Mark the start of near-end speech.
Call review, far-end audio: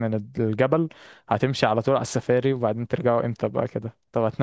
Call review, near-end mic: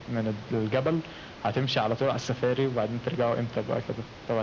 none

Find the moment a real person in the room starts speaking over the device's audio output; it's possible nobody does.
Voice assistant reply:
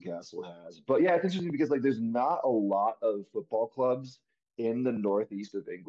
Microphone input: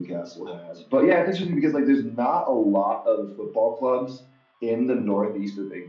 none

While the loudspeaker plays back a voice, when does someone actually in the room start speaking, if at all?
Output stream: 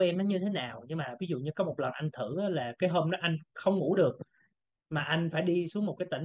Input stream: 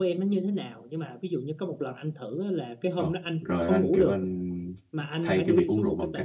3.0 s

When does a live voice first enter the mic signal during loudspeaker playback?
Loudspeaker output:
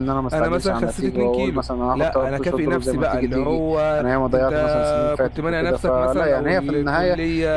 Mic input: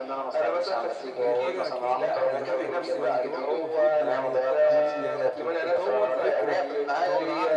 1.1 s

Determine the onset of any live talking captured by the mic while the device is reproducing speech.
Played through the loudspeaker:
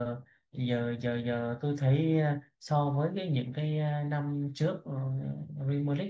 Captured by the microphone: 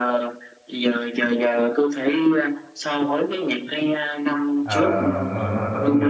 4.6 s

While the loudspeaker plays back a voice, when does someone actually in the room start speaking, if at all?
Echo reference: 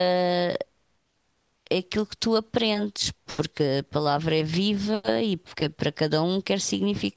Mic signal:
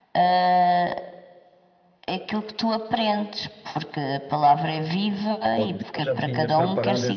5.6 s

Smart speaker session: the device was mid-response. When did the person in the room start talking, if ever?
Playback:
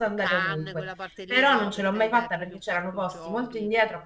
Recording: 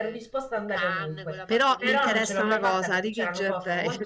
1.4 s

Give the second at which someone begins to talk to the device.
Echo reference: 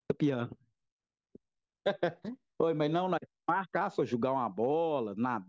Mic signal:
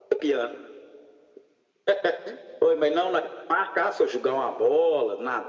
none

